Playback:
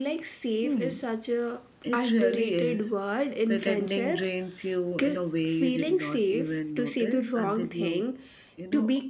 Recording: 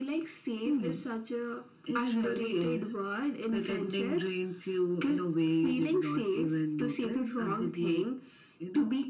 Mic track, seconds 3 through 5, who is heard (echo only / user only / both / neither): echo only